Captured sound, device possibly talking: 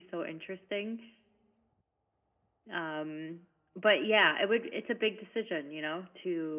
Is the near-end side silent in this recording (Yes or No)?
Yes